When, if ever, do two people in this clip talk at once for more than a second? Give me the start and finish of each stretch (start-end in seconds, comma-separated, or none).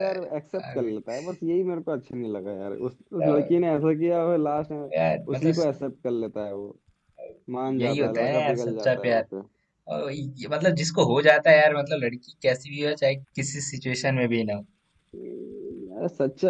7.8-9.2